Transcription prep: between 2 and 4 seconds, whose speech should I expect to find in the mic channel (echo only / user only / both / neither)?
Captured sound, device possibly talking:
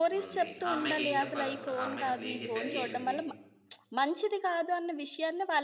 both